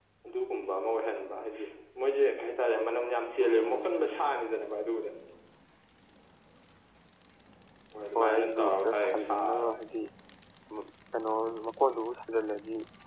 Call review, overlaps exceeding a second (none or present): present